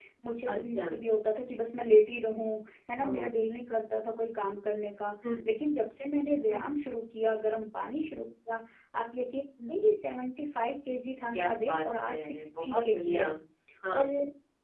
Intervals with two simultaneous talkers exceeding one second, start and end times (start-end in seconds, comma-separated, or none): 11.3-13.3